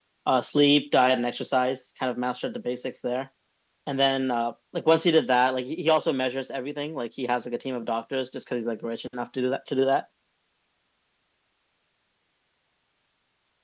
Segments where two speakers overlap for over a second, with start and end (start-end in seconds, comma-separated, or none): none